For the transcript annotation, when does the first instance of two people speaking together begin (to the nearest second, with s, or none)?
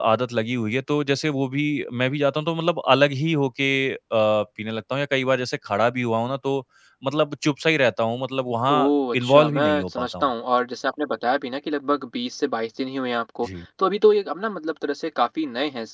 9 s